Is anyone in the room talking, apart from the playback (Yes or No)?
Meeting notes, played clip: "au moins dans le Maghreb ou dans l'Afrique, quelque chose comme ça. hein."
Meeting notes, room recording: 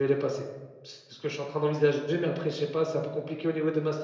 Yes